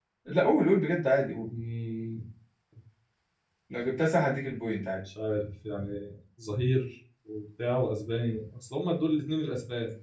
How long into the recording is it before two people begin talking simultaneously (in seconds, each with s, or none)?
none